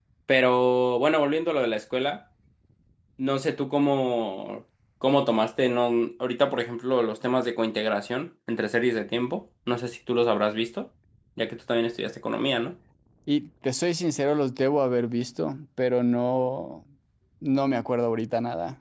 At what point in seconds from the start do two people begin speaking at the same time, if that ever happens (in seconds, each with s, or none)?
none